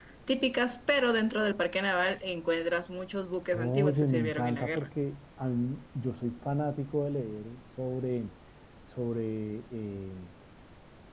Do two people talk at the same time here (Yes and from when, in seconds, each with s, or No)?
Yes, from 3.5 s